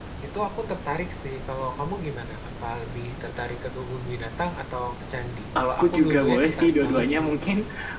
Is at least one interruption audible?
Yes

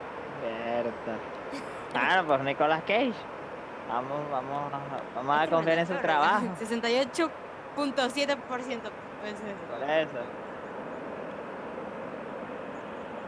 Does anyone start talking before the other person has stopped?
Yes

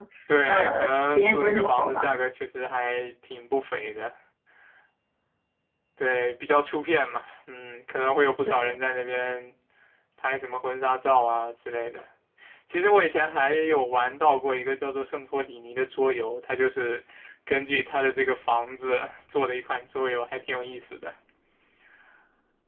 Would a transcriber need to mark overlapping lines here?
Yes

